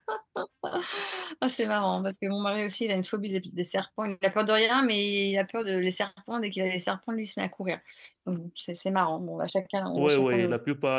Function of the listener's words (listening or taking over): taking over